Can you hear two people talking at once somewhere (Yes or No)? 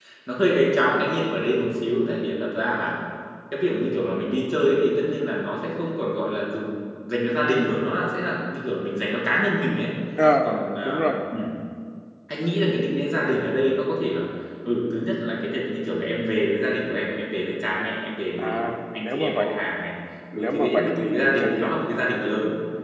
Yes